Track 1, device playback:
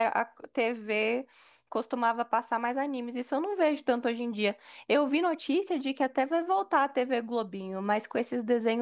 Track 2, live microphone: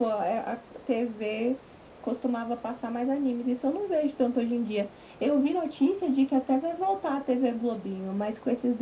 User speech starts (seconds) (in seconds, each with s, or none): none